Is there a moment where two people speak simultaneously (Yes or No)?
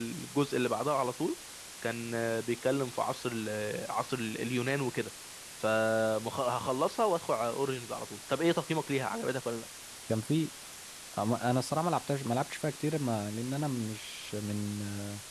No